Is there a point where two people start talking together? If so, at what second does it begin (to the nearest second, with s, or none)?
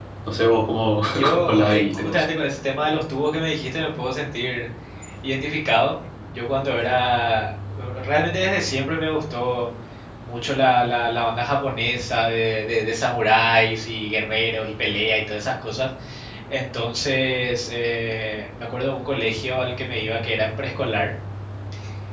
1 s